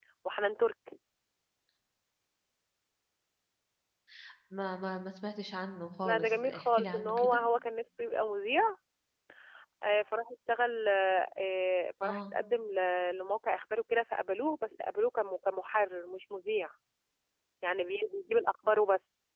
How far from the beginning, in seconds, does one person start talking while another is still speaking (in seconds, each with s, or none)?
6.0 s